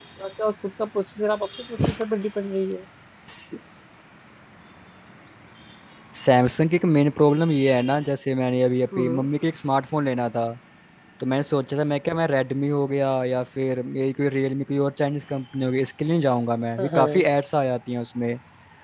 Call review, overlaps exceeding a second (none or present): none